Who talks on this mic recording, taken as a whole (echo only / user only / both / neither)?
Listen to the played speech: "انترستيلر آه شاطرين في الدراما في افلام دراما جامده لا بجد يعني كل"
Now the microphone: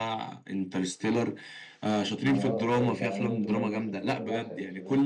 both